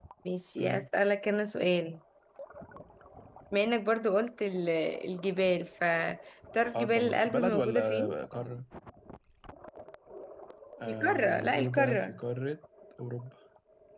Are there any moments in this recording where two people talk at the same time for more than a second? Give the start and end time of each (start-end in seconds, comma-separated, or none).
6.7-8.2, 10.9-12.2